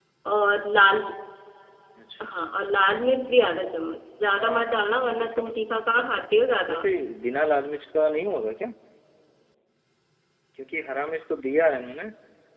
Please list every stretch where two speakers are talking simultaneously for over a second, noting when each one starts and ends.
4.3-6.1

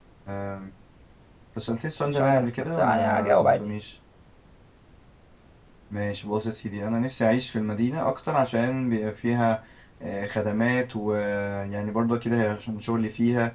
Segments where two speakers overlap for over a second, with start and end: 2.0-3.6

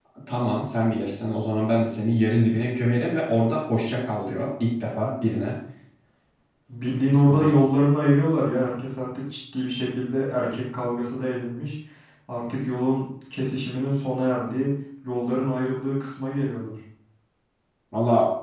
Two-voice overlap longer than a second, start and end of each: none

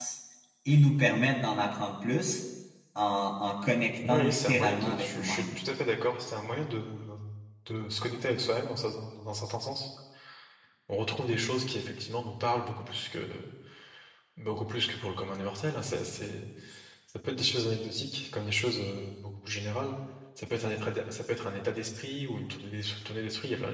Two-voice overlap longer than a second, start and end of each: 4.1-5.6

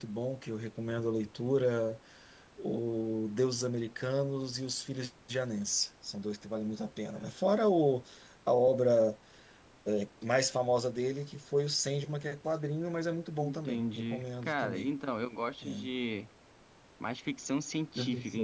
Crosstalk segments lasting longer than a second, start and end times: 13.4-14.9

